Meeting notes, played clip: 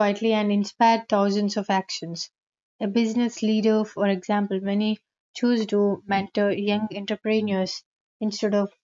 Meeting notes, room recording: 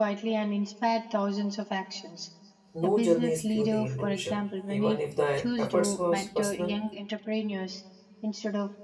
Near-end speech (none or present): present